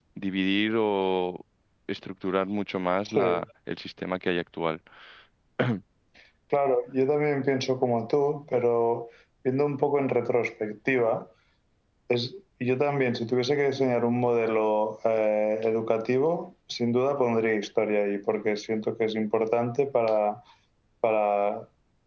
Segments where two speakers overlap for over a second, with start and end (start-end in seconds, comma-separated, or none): none